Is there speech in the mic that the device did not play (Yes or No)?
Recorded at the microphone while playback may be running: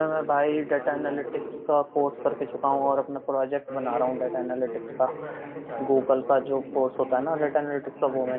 Yes